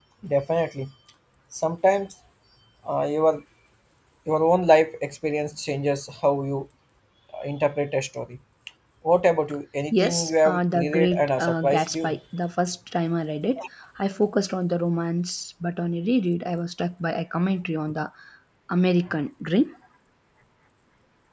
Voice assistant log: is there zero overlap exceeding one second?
No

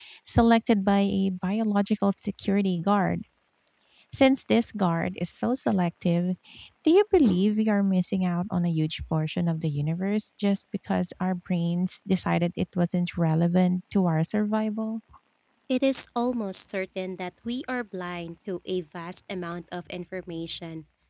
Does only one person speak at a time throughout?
Yes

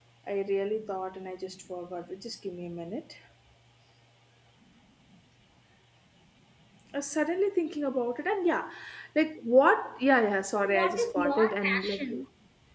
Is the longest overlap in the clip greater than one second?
Yes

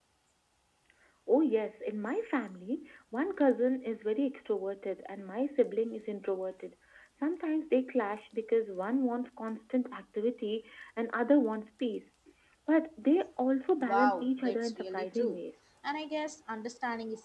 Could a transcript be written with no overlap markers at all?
No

